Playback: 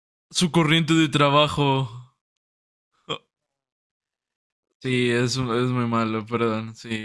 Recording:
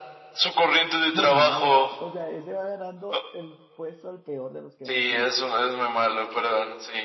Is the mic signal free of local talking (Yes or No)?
No